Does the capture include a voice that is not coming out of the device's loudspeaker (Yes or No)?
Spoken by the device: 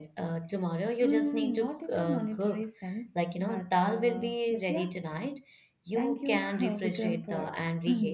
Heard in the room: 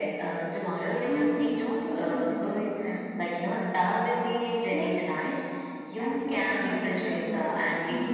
No